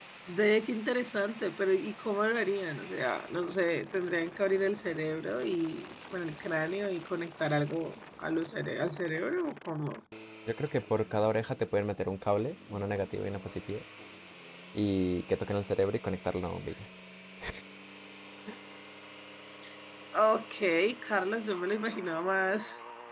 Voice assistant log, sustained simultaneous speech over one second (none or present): none